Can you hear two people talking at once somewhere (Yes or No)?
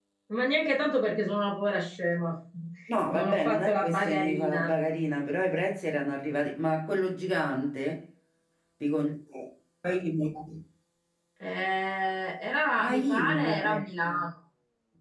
Yes